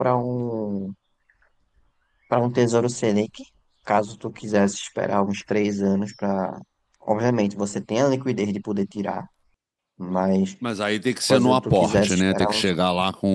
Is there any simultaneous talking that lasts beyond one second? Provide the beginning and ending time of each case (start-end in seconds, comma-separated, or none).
11.3-12.7